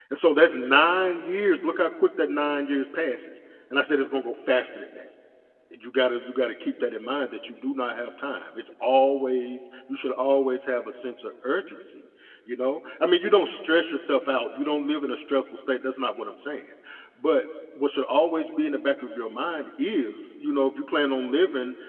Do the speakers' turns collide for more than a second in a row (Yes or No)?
No